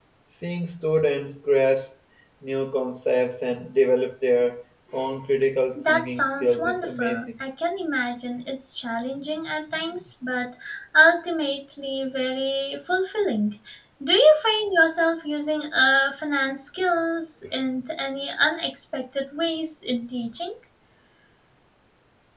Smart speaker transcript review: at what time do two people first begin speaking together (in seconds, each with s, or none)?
5.8 s